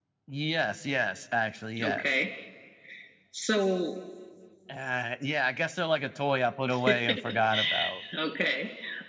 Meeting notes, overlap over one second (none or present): none